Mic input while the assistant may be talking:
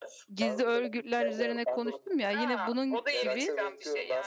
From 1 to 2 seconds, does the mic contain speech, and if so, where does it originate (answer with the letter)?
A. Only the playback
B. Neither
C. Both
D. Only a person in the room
C